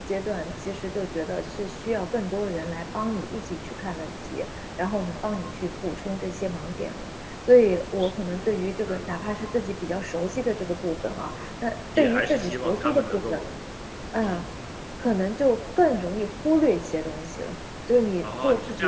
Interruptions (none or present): present